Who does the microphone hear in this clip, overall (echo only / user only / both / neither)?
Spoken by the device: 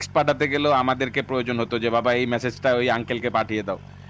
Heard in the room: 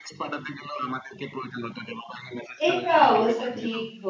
both